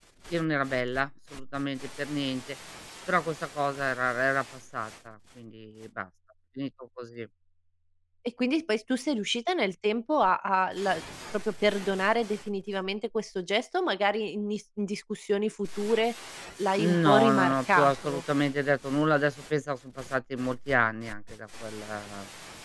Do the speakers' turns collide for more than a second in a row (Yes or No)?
Yes